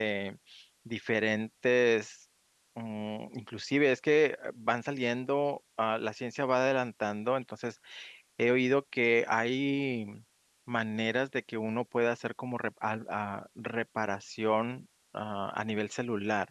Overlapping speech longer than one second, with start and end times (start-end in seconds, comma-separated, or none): none